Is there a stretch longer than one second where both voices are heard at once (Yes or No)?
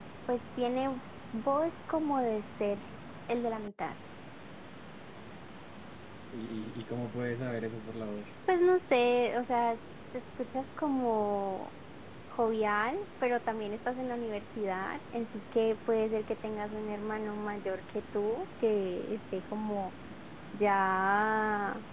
No